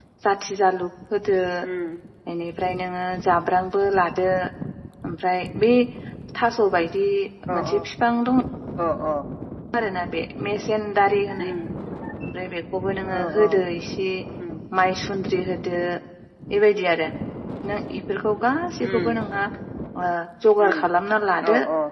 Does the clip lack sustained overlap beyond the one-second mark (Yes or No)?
Yes